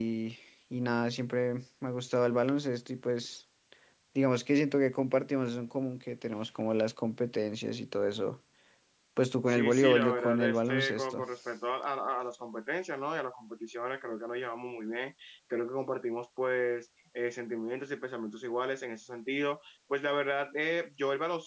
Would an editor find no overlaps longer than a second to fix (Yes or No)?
No